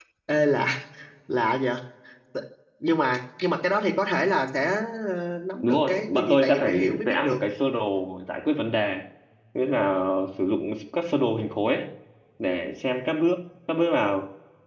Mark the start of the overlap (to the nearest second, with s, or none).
6 s